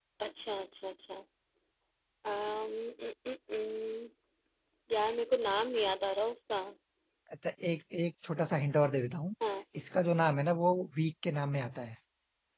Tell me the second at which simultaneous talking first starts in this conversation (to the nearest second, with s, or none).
none